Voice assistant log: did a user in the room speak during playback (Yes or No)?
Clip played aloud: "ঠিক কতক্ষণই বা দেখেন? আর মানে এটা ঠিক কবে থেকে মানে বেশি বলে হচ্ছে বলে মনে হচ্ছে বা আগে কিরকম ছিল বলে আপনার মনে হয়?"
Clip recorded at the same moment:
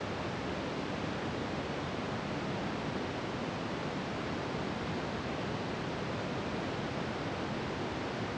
No